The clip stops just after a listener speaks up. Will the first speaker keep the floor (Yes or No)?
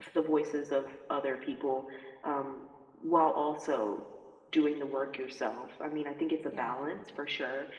Yes